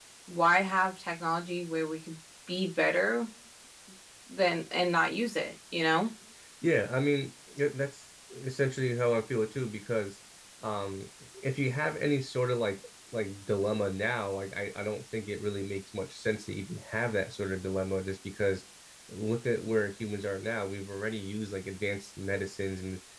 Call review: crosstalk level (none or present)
none